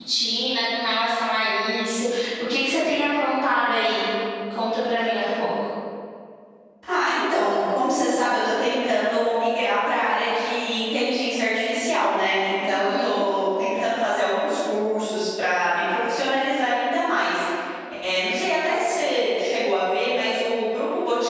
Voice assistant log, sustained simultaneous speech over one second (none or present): none